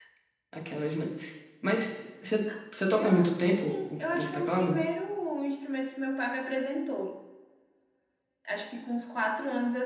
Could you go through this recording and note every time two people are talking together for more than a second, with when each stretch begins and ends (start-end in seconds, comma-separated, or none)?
2.9-4.8